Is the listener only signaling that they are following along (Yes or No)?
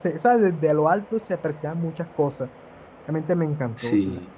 No